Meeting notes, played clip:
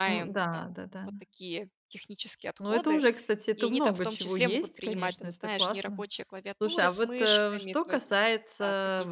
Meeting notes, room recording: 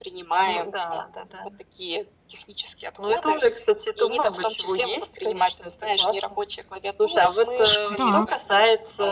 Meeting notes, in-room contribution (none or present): present